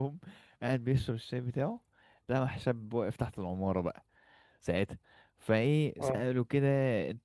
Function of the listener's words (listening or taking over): listening